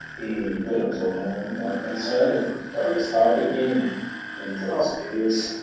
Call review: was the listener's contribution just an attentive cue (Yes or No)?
Yes